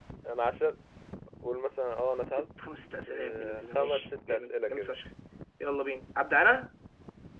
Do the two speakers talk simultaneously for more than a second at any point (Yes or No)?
Yes